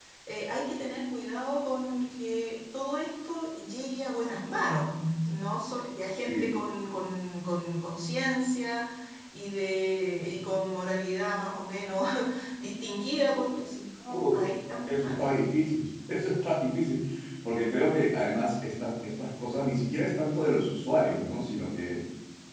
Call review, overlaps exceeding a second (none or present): none